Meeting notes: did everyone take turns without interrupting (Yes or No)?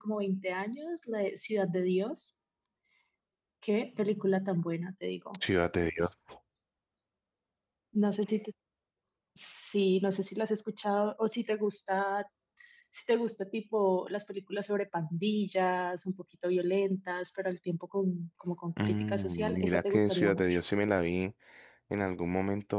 No